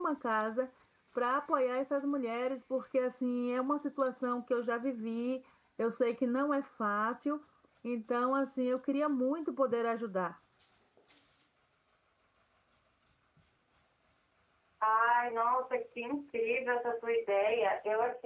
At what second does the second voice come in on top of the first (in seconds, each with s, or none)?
none